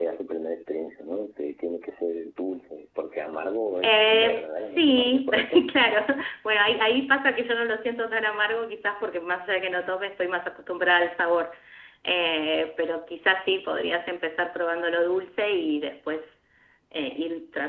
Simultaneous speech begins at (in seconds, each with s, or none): 3.8 s